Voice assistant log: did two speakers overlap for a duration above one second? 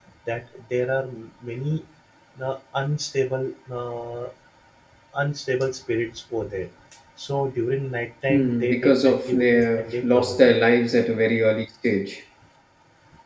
Yes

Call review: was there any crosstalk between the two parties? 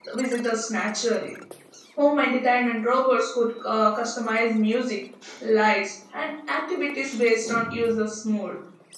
No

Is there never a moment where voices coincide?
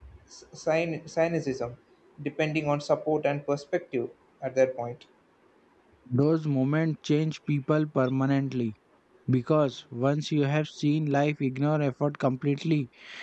Yes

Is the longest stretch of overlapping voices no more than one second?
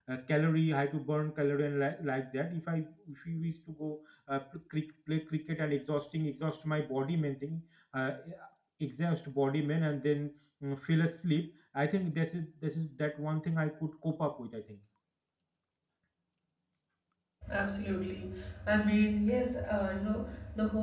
Yes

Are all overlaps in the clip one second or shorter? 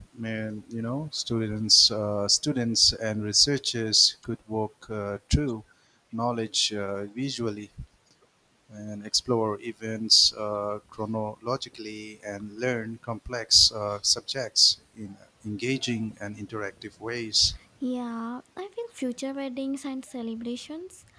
Yes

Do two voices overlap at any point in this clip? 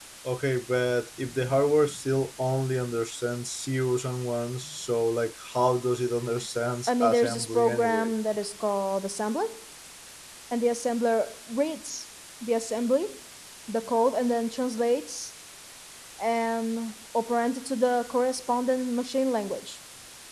Yes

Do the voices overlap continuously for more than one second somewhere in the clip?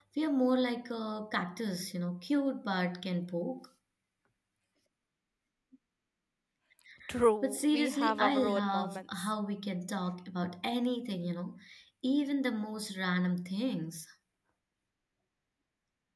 Yes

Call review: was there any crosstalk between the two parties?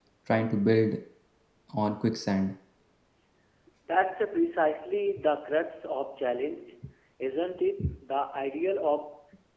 No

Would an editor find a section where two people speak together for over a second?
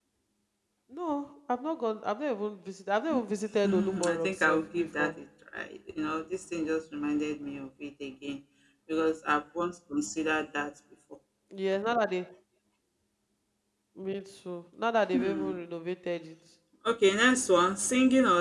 Yes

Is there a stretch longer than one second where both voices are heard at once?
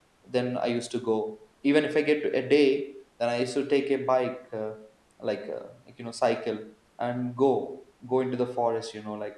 No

